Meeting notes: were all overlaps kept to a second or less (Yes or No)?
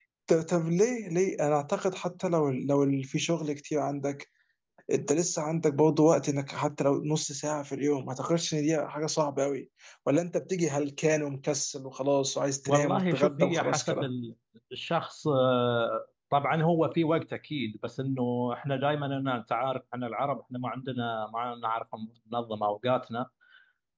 No